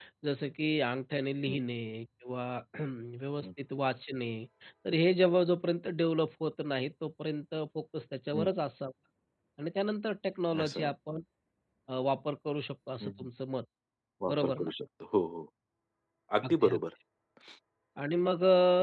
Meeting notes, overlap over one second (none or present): none